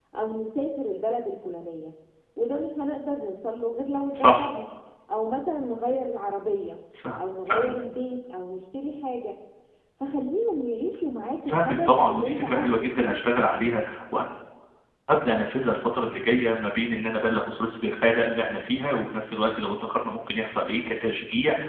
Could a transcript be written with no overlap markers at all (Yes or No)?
No